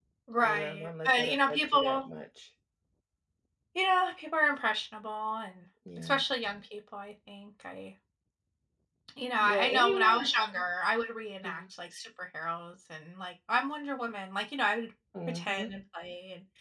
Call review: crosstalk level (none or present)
present